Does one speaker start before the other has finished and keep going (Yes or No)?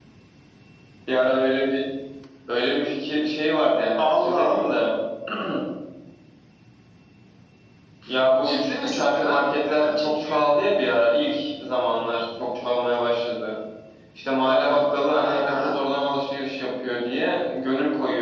Yes